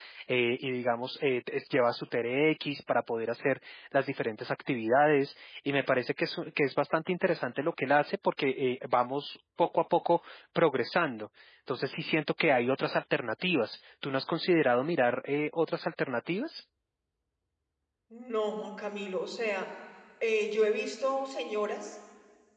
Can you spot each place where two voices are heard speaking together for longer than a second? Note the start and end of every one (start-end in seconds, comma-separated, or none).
none